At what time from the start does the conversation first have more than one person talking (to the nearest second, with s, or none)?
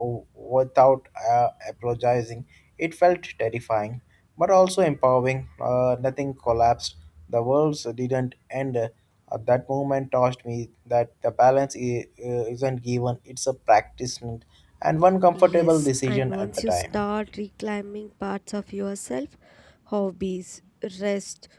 15 s